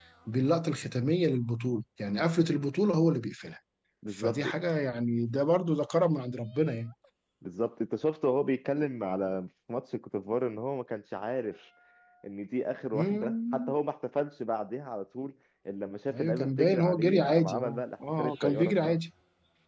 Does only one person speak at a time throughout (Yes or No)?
No